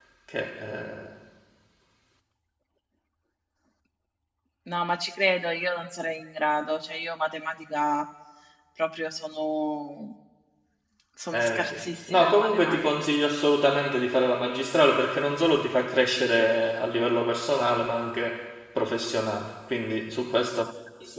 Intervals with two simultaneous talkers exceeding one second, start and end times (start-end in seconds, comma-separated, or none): 11.3-12.9